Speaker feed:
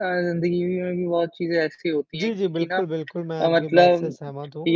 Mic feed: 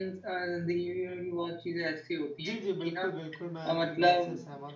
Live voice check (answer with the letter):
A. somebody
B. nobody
B